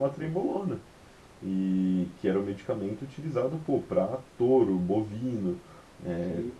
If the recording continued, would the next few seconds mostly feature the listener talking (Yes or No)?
No